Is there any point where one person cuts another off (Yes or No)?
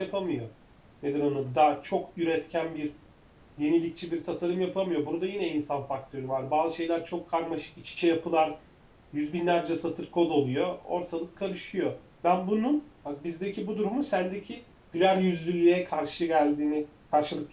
No